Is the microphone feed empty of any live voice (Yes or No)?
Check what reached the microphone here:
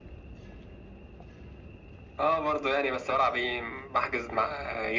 Yes